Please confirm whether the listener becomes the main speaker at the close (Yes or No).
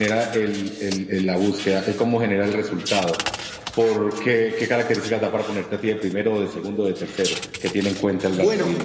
Yes